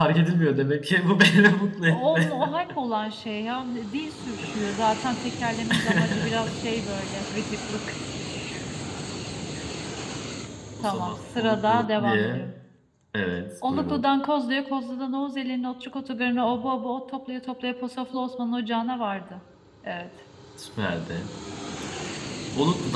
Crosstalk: present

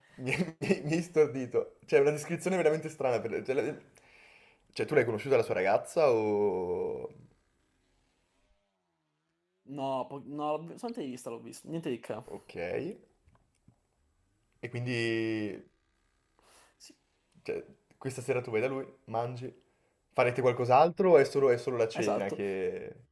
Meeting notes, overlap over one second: none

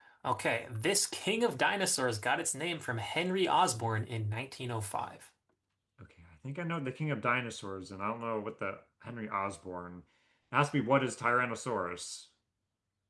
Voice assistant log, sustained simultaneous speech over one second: none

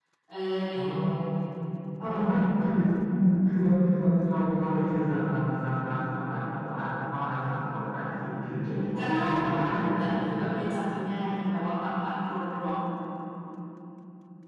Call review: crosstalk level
present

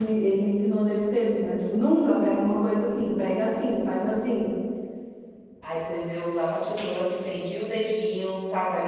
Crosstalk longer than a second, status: none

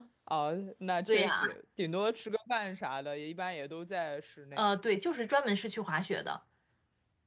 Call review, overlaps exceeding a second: none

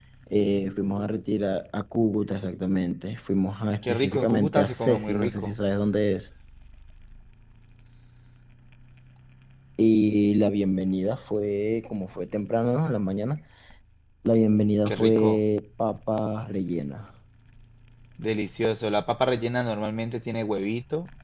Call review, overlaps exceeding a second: present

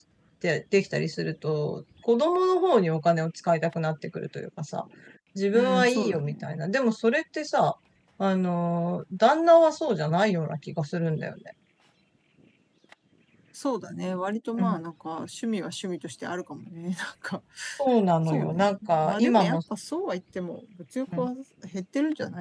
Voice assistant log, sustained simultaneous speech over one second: present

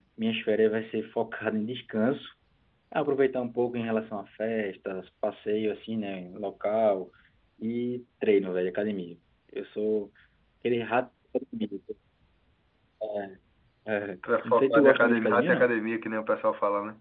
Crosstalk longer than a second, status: present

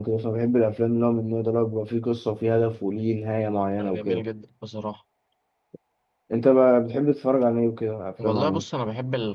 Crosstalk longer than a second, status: none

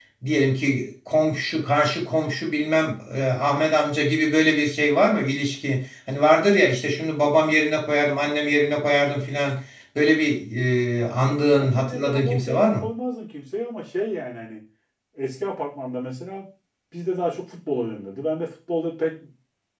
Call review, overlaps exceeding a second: present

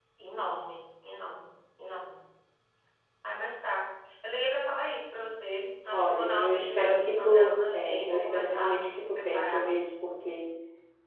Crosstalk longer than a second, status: present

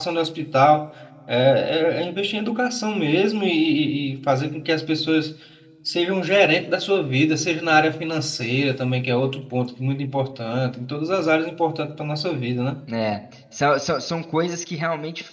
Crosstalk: none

